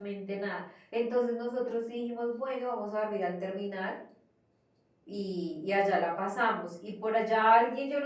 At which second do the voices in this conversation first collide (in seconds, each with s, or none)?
none